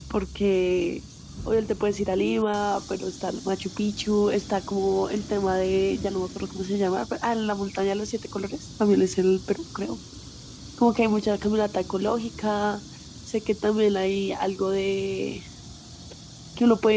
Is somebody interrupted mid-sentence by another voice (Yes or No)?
No